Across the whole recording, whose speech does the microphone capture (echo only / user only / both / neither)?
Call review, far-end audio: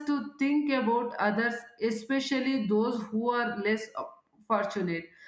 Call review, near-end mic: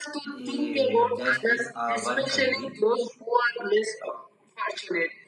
both